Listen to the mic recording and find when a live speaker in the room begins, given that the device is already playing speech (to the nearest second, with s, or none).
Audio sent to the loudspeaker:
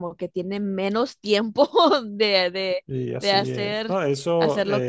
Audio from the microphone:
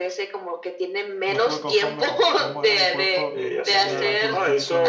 1 s